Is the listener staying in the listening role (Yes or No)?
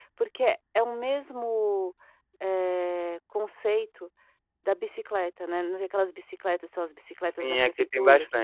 No